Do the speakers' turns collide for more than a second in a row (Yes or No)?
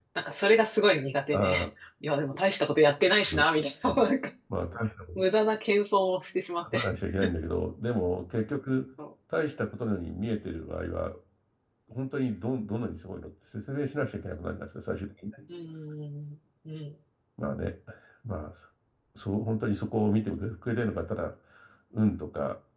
No